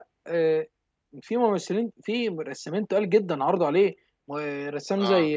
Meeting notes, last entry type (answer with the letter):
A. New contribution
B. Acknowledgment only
B